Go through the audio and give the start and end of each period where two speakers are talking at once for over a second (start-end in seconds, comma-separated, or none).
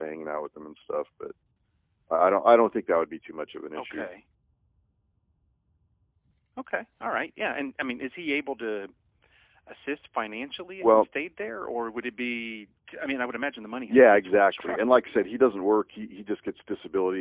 13.9-15.1